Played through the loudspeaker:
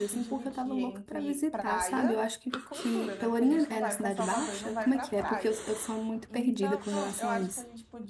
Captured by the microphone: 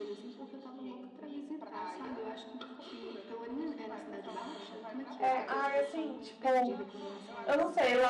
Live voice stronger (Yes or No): Yes